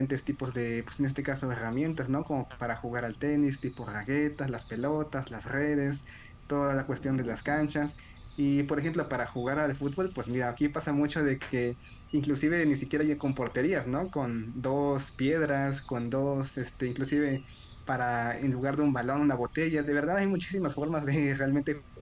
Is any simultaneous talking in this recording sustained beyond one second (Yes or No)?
No